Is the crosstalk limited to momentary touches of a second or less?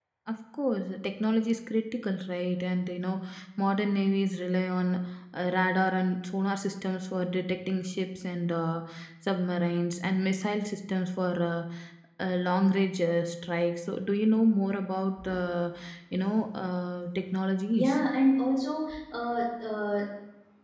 Yes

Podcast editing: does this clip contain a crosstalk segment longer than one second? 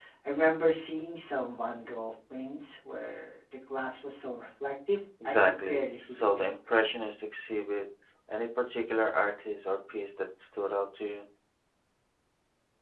Yes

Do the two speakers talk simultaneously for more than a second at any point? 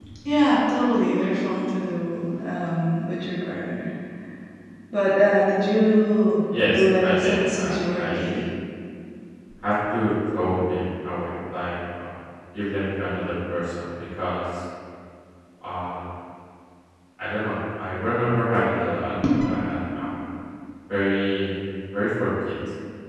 Yes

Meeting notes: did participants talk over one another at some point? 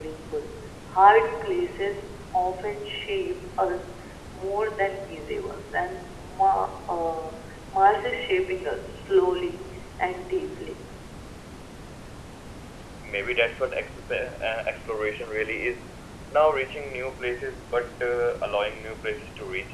No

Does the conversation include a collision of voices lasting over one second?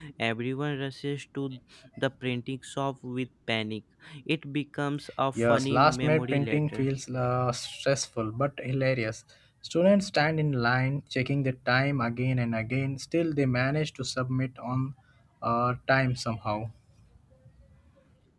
Yes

